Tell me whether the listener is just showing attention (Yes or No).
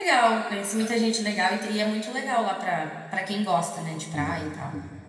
No